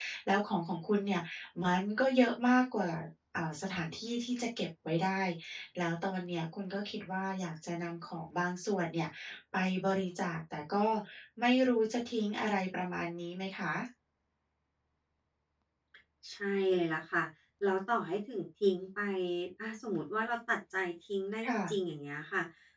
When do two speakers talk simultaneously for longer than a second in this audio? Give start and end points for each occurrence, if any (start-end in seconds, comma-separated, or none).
none